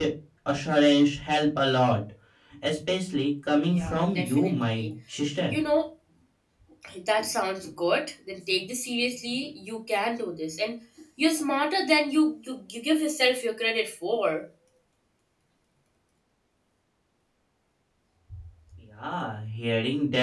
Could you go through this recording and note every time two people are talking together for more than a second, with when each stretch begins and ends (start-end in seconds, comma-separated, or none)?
3.7-4.9